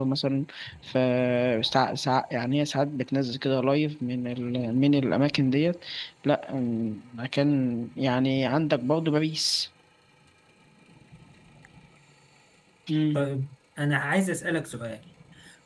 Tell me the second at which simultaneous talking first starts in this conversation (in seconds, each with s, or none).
none